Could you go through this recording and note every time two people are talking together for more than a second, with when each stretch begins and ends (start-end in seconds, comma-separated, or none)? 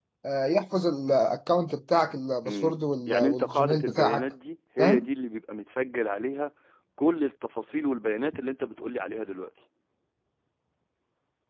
2.5-4.2